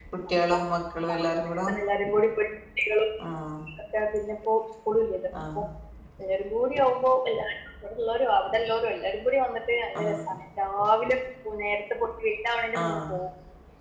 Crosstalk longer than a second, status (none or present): none